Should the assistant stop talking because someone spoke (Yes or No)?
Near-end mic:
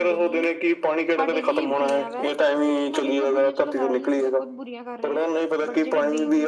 Yes